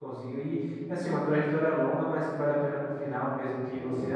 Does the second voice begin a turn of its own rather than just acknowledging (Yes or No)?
No